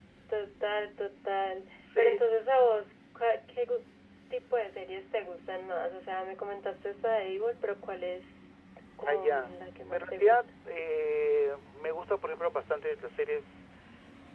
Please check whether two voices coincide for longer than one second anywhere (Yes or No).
Yes